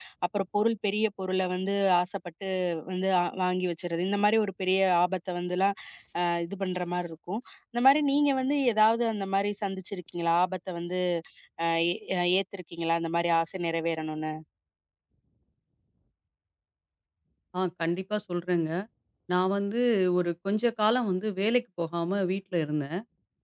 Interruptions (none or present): none